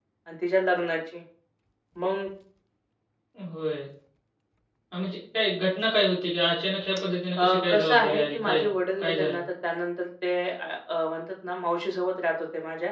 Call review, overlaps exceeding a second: present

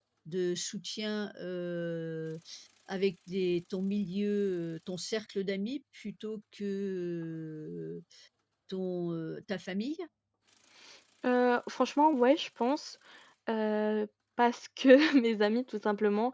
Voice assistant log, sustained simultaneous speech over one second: none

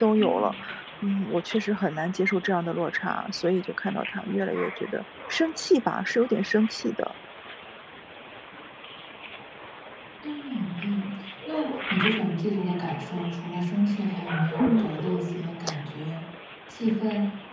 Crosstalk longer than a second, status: none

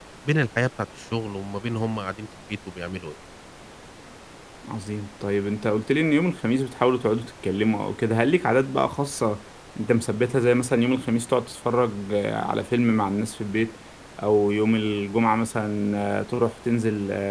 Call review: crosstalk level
none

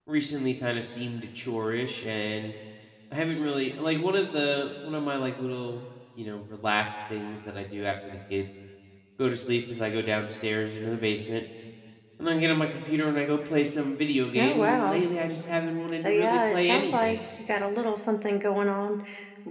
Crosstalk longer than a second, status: present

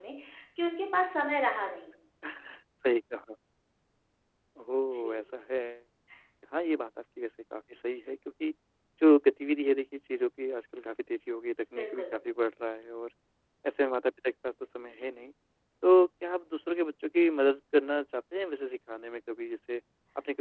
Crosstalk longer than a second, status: none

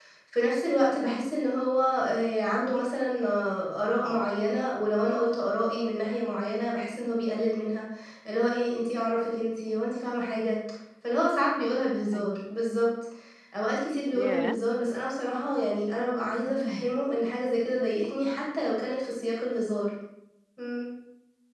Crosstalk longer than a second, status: none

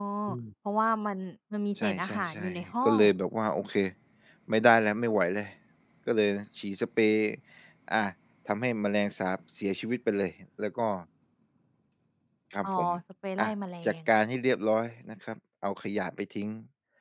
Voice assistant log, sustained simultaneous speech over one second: present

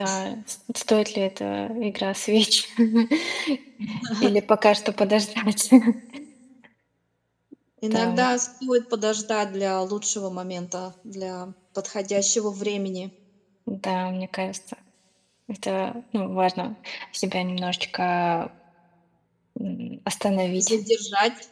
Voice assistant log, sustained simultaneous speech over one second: none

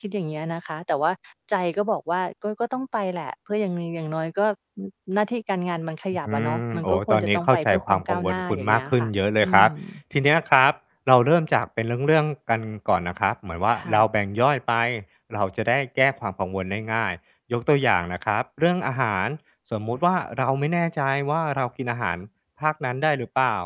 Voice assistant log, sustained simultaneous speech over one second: present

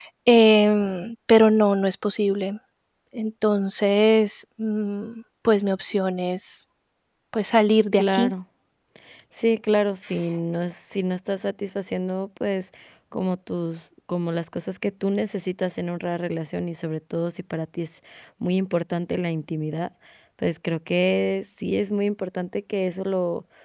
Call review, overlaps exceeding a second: none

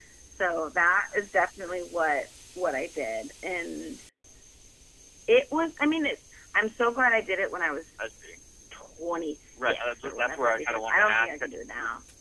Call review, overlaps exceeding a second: present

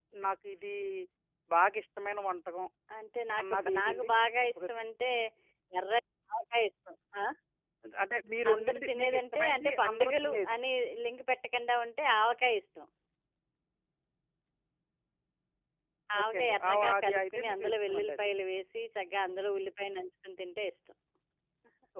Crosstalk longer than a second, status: present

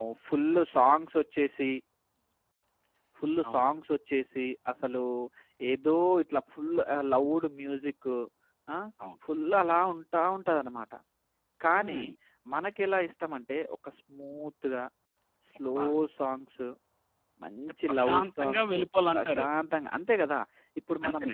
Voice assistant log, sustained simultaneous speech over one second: present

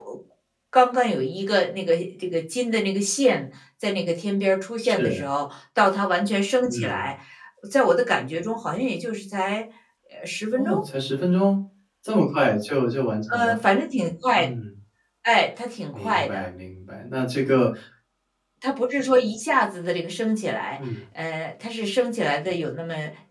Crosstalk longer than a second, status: none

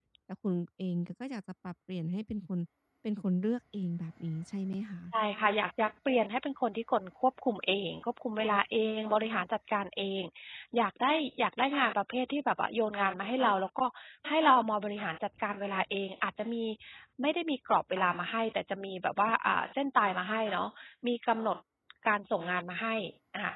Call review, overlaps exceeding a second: none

